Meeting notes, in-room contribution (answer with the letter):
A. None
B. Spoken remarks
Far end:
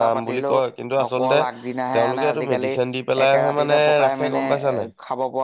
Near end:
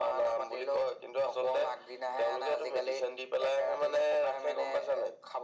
A